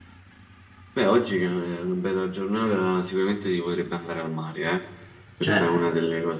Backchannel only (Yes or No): Yes